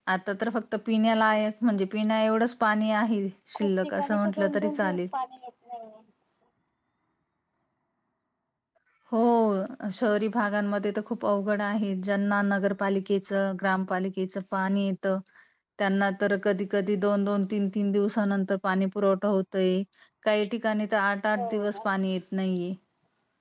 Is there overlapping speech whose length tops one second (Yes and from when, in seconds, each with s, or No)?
Yes, from 3.5 s